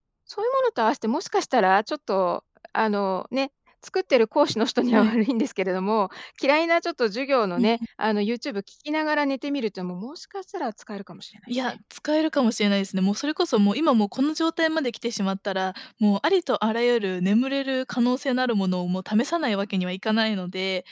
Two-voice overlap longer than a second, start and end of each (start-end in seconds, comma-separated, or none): none